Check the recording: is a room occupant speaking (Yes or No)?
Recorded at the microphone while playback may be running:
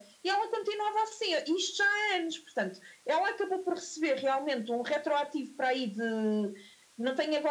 No